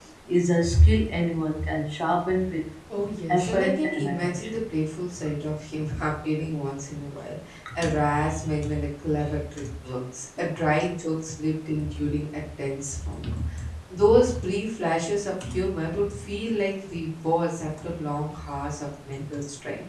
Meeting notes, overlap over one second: present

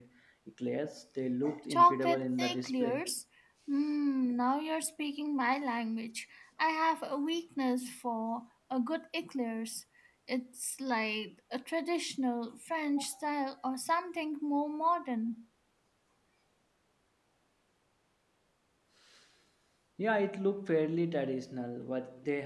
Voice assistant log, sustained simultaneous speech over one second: present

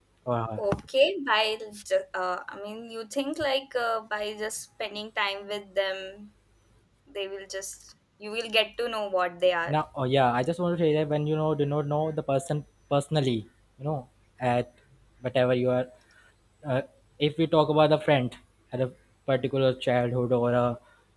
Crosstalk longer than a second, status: none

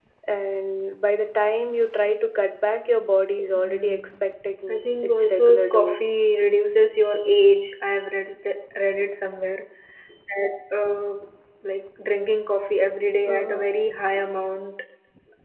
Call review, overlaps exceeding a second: present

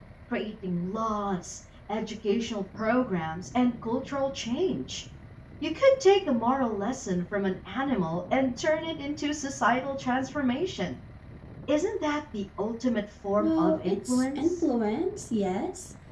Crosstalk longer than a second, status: present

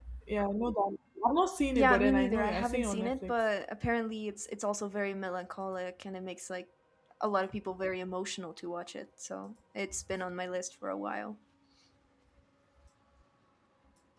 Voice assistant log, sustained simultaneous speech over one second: present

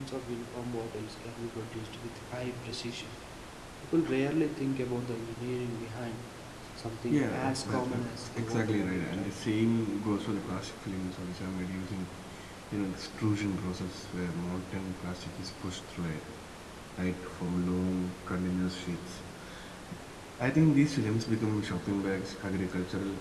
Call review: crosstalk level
present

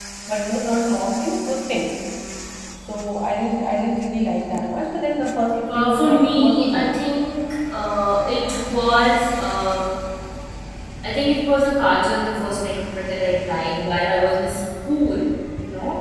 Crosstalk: present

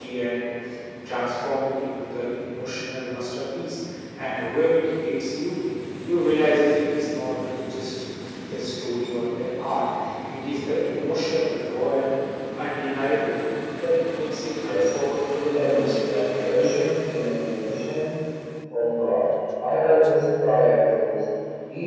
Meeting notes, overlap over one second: present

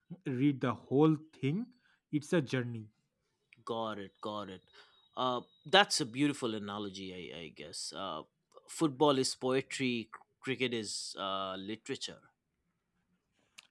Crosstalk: none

